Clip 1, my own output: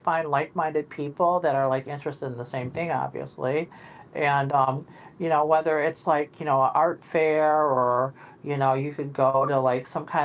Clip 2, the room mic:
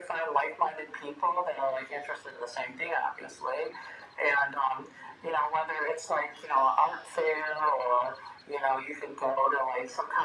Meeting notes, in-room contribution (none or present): none